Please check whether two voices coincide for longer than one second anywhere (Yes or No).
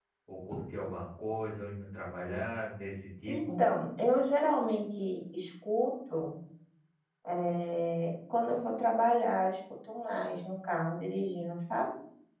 No